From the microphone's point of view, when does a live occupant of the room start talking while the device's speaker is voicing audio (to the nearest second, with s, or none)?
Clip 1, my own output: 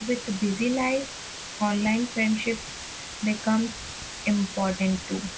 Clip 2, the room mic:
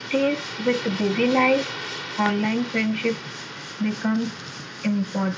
none